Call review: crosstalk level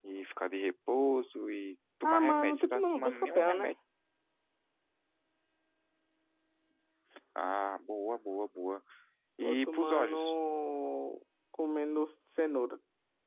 present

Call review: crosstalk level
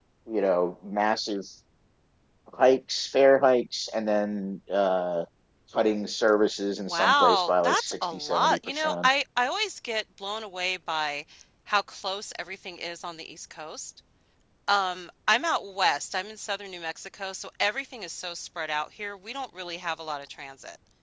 present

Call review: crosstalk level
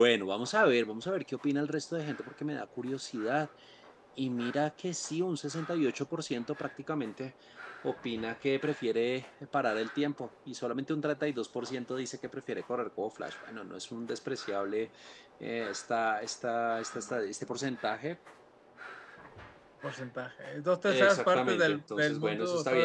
present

